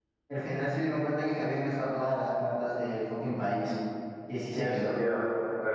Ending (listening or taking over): taking over